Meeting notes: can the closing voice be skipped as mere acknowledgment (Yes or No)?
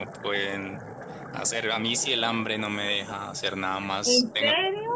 Yes